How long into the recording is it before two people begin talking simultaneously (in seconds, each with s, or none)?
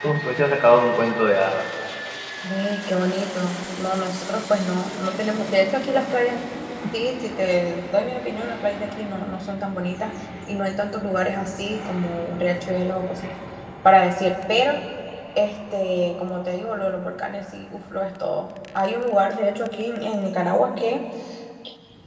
none